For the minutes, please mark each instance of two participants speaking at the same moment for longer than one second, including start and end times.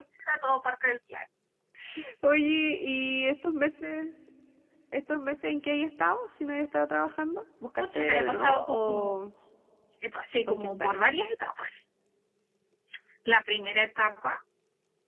7.8-9.2

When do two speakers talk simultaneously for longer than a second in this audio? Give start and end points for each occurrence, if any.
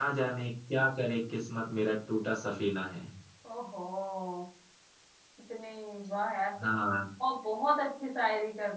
none

